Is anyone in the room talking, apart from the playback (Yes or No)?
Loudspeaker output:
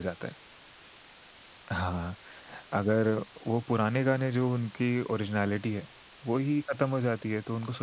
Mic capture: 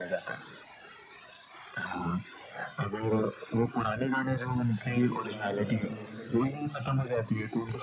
Yes